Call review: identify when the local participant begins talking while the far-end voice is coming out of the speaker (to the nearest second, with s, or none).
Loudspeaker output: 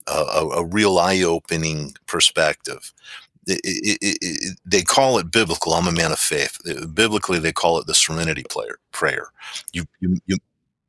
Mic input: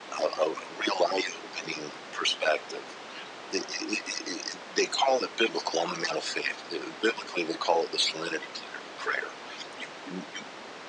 none